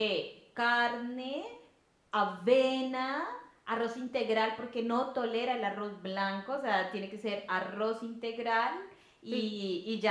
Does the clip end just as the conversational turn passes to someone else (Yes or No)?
No